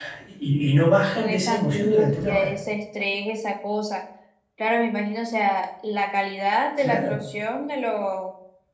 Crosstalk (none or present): present